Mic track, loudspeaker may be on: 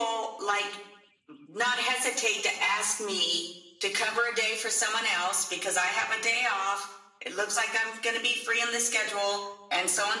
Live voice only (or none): none